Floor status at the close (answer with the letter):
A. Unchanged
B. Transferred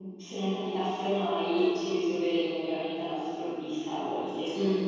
B